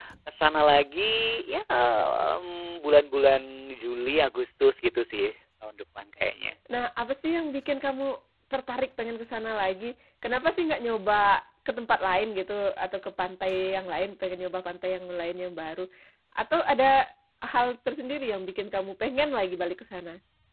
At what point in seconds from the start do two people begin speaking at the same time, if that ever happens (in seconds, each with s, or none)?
none